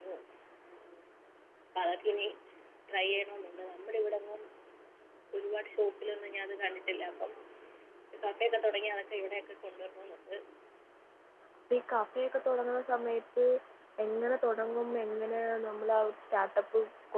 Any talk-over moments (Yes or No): No